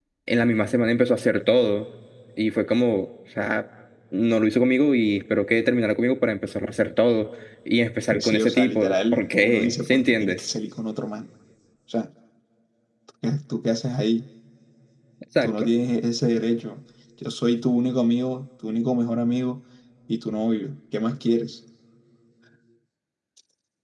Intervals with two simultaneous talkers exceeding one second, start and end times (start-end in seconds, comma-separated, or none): 8.1-10.4